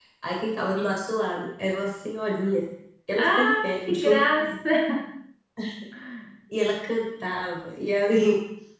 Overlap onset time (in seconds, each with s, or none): 3.2 s